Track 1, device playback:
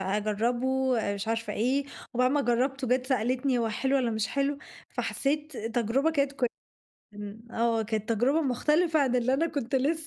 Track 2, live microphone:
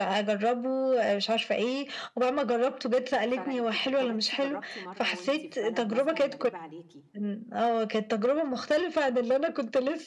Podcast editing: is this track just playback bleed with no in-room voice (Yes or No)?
No